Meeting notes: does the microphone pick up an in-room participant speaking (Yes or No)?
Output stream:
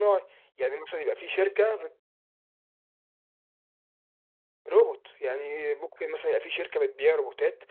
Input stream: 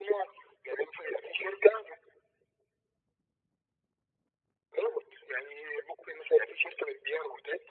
No